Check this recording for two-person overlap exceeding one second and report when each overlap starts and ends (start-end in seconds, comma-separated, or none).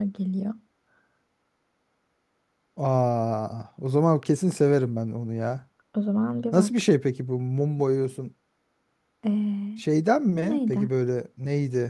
none